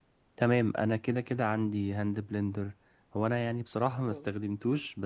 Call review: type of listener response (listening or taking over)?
listening